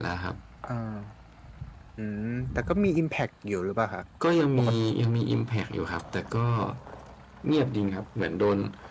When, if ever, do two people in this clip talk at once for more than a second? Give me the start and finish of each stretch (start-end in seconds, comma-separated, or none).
none